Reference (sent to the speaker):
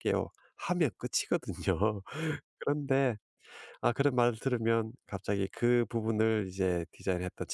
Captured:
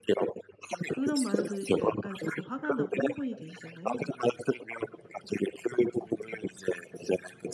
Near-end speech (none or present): present